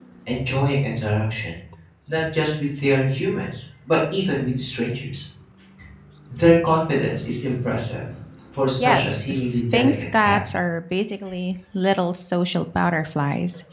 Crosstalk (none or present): present